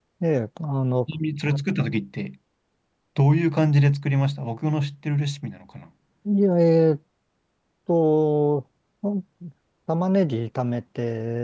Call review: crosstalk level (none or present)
none